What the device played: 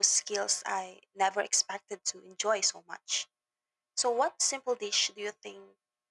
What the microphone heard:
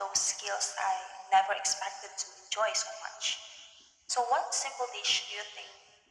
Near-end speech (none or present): none